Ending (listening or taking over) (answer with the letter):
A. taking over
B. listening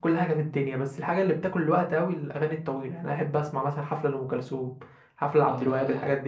A